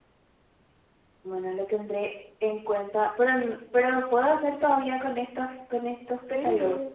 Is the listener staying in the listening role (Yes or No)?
No